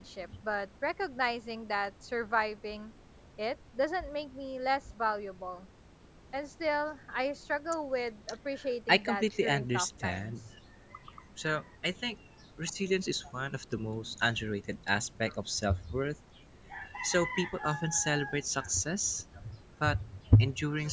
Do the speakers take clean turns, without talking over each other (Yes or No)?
No